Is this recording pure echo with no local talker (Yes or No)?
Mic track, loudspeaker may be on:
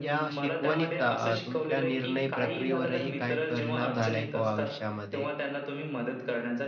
No